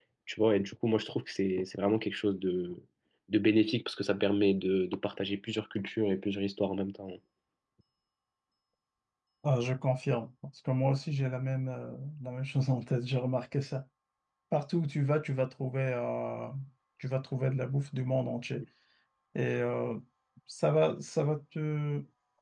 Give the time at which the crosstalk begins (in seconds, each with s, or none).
none